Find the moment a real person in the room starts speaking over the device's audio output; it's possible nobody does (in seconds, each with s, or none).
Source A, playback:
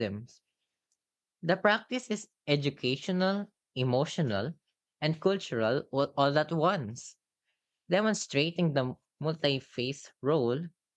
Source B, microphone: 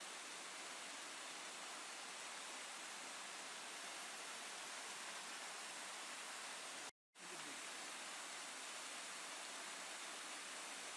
none